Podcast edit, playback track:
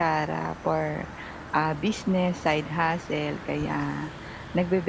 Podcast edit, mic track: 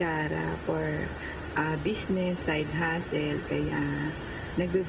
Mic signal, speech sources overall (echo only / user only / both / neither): echo only